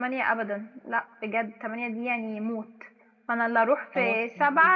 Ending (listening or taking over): listening